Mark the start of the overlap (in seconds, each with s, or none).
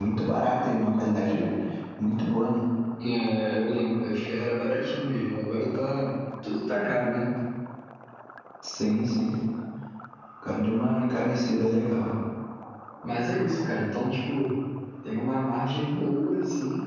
none